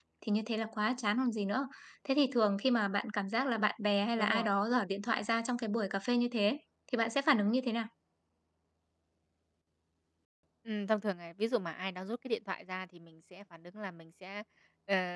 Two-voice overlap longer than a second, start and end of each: none

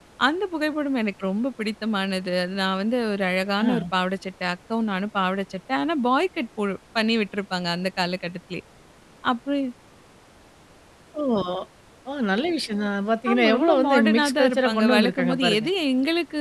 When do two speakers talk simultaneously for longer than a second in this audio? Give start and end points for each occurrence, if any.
13.3-15.7

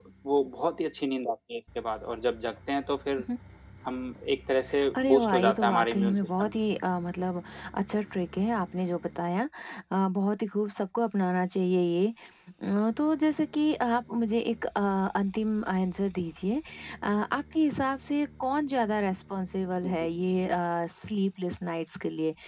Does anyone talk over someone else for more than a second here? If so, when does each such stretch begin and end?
5.0-6.6

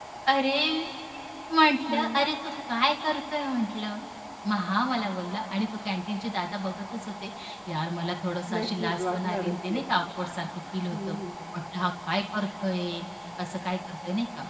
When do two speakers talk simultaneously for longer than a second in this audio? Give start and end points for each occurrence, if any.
8.6-9.8

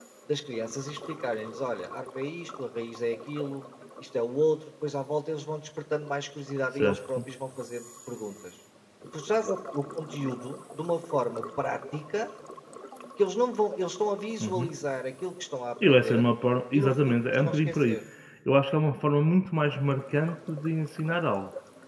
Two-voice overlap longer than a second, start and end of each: 16.7-18.0

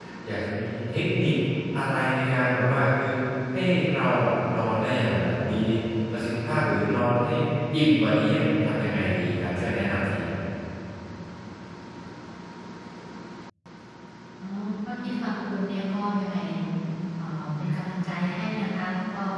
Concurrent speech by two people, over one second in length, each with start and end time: none

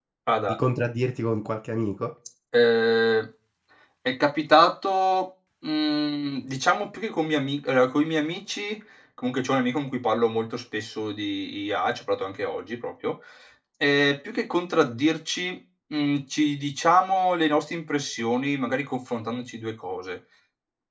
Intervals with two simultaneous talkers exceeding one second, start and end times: none

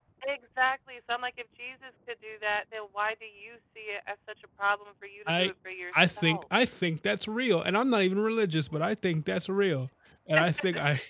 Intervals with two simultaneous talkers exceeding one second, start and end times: none

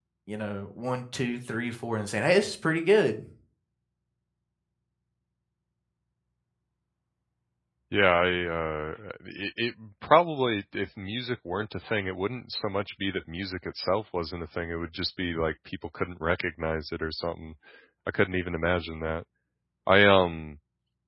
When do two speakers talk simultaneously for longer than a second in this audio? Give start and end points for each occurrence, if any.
none

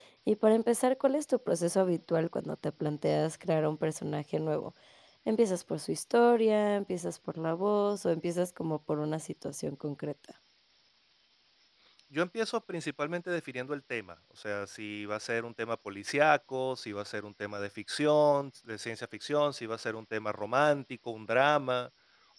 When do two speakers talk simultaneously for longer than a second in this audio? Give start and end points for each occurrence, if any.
none

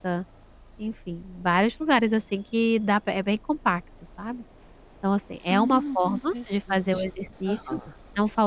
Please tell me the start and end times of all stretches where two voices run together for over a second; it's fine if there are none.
5.5-7.0

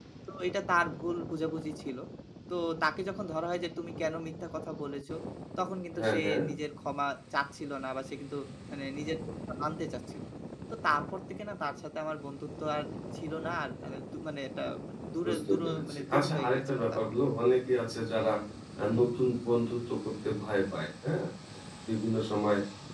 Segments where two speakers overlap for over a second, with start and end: 15.2-17.0

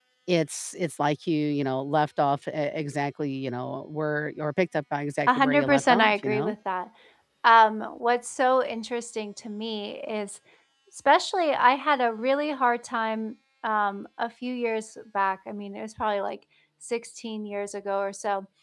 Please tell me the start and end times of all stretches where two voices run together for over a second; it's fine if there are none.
5.3-6.5

